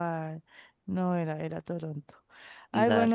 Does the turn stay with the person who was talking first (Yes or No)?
Yes